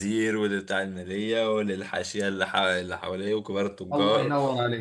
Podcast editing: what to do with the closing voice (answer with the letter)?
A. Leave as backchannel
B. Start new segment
B